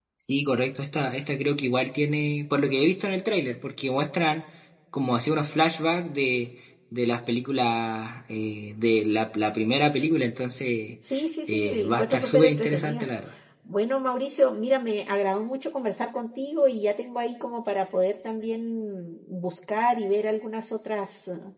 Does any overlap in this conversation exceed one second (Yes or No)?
Yes